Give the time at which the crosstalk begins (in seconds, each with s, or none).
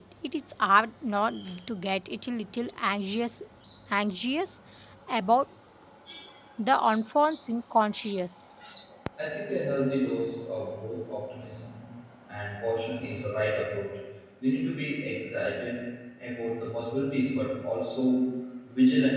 none